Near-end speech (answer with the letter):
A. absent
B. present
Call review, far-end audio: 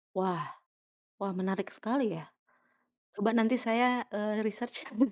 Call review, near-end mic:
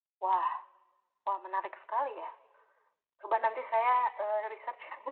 A